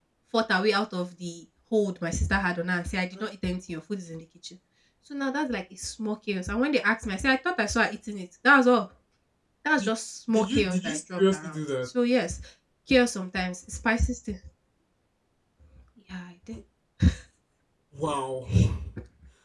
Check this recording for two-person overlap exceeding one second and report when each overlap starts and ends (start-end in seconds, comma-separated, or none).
10.3-11.6